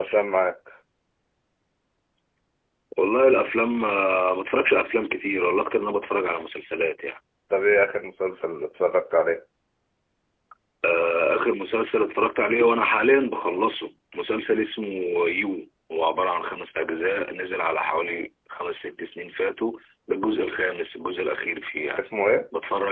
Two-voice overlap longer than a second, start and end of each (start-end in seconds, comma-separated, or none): none